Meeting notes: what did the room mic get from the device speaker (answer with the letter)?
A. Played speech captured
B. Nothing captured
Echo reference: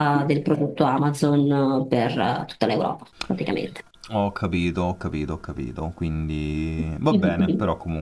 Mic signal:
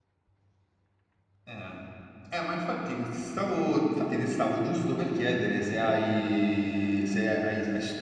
B